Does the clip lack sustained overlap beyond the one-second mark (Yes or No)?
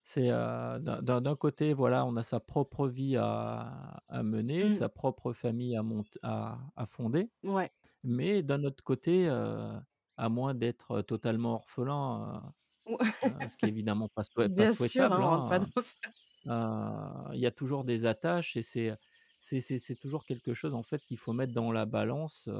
No